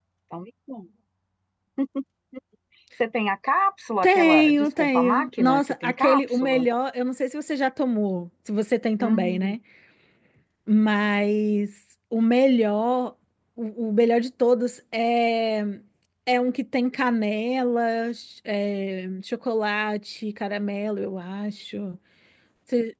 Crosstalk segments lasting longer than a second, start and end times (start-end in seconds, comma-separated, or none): 4.0-6.7